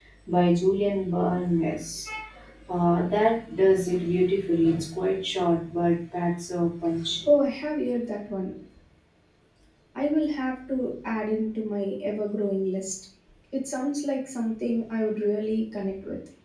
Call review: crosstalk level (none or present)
none